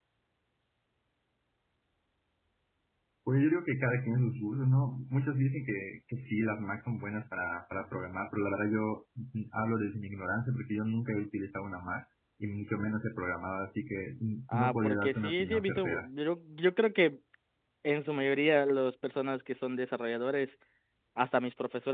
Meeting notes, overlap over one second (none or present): present